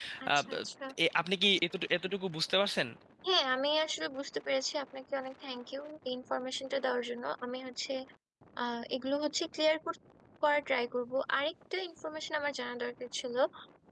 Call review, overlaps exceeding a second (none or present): none